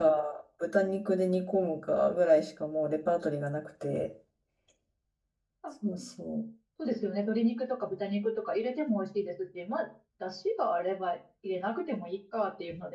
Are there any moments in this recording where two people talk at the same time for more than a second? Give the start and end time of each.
none

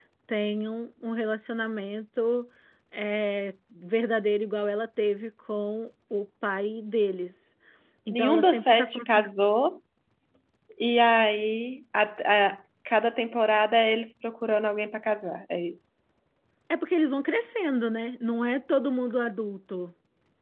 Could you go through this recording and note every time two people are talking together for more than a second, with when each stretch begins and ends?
8.1-9.3

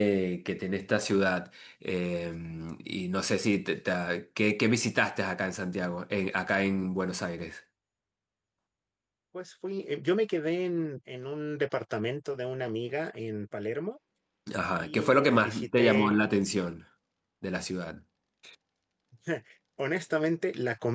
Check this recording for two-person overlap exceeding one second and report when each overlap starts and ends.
14.6-16.1

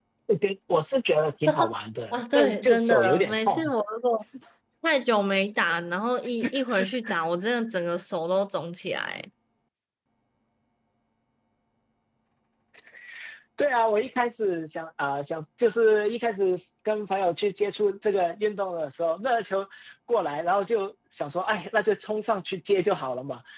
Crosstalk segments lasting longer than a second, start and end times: 2.1-3.7

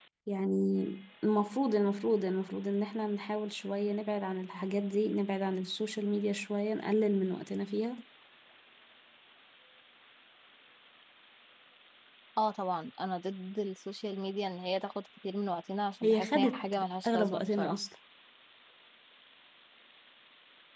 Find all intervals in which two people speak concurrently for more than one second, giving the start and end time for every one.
16.0-17.8

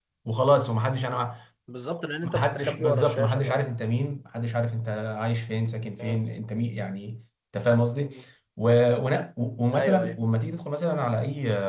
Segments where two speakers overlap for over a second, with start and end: 2.2-3.7

